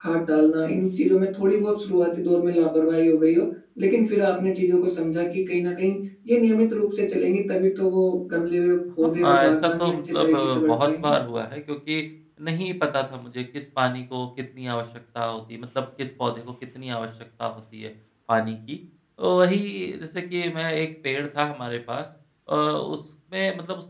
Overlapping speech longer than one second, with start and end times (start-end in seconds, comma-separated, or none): 9.0-11.1